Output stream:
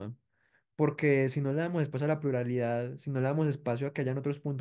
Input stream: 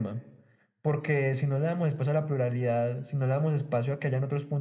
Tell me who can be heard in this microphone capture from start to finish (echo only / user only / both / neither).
echo only